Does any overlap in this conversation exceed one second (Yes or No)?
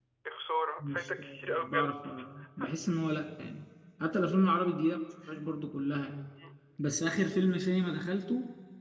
Yes